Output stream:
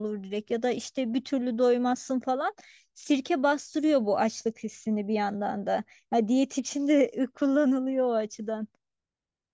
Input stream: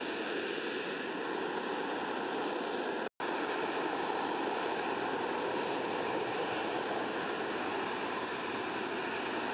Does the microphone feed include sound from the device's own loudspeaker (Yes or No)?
No